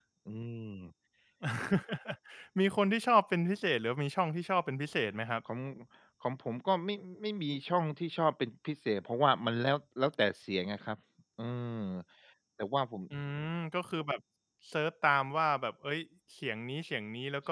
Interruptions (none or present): none